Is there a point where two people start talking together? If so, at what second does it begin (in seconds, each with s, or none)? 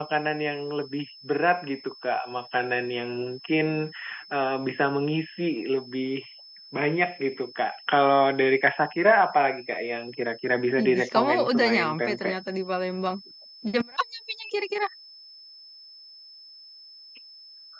10.8 s